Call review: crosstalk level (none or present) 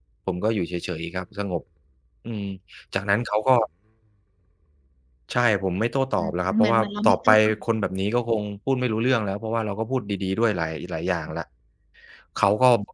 present